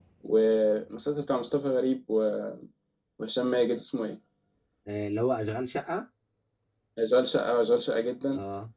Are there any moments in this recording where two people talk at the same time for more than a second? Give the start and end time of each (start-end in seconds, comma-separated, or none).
none